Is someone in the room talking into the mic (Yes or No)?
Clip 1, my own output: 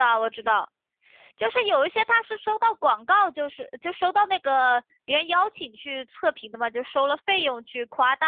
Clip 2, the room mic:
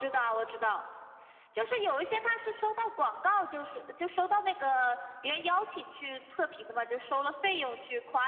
No